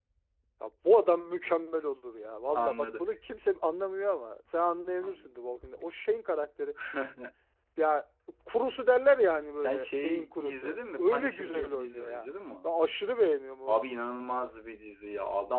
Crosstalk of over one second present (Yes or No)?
Yes